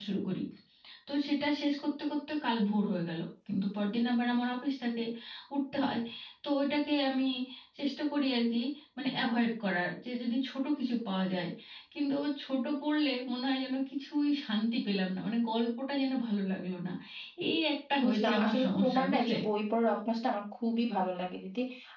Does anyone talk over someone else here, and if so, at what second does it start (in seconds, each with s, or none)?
18.0 s